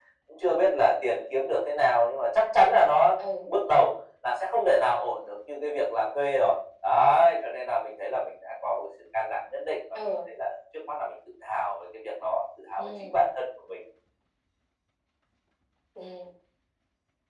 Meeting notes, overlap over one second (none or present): none